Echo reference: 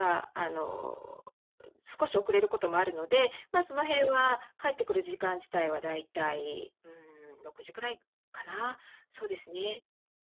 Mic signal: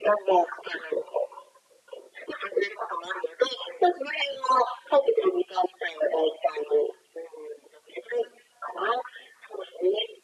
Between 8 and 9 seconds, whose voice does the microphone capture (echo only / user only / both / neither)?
echo only